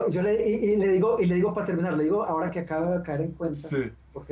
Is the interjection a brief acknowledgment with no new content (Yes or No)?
Yes